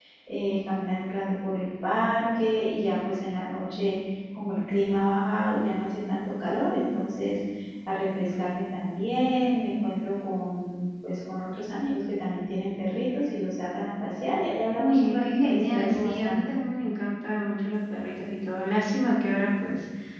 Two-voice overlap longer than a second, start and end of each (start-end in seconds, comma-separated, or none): 14.8-16.5